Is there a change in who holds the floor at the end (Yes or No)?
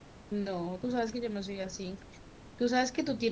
No